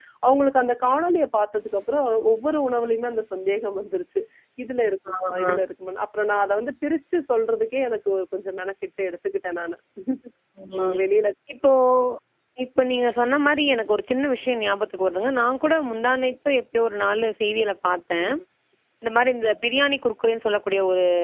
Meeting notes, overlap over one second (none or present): none